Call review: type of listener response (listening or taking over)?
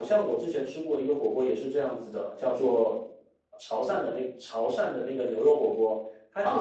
taking over